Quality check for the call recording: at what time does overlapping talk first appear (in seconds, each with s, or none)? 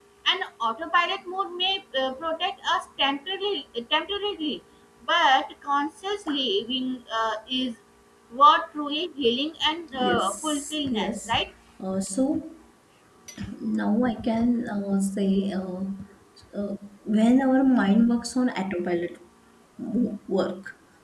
9.9 s